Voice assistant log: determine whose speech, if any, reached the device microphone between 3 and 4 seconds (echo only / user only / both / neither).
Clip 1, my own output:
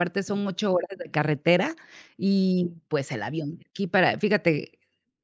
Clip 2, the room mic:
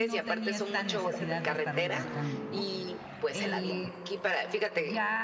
both